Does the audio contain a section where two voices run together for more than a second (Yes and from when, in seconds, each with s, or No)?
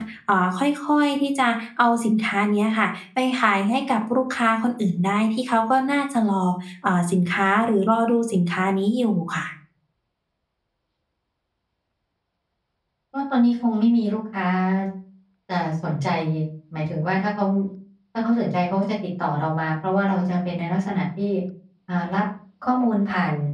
No